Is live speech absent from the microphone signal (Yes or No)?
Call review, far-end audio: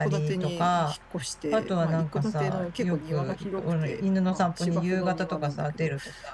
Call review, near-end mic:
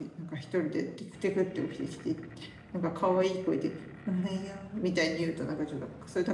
No